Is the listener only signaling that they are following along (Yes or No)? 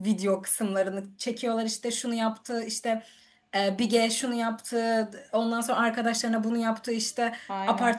Yes